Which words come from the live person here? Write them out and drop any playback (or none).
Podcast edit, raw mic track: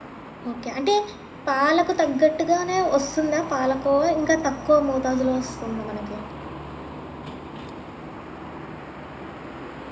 ఓకే. అంటే పాలకు తగ్గట్టుగానే వస్తుందా పాలకోవా? ఇంకా తక్కువ మోతాదులో వస్తుందా మనకి?